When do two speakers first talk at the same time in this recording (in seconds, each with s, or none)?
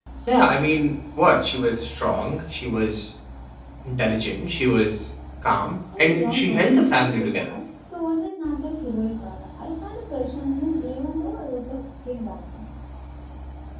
5.9 s